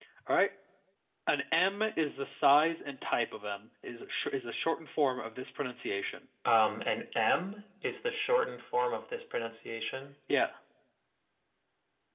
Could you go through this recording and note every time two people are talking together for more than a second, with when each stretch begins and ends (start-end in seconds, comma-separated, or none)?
none